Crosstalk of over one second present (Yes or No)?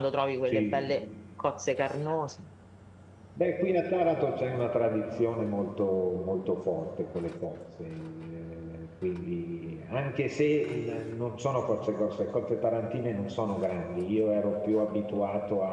No